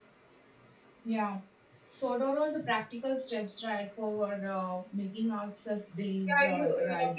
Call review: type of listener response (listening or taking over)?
taking over